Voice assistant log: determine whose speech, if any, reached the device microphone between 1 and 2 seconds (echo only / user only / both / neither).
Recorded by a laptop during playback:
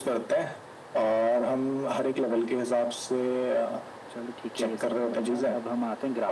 echo only